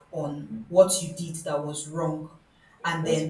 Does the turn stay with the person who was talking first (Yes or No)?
Yes